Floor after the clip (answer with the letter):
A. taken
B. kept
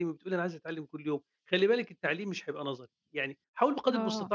B